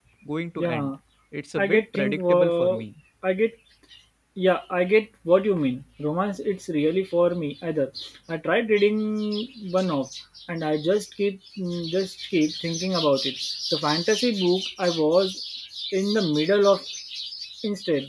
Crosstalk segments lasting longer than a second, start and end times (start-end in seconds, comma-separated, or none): 1.6-2.8